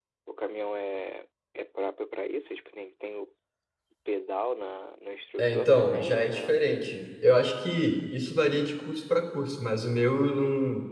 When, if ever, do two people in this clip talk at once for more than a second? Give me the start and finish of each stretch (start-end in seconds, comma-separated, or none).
5.4-6.6